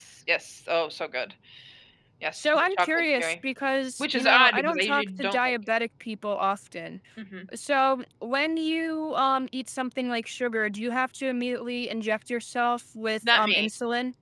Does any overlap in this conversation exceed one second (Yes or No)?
Yes